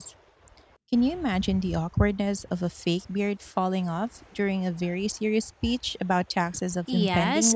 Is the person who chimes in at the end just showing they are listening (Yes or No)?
No